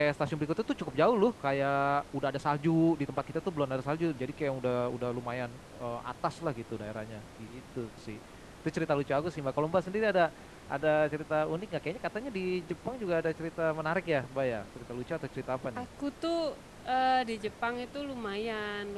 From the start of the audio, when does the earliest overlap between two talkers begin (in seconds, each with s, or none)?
none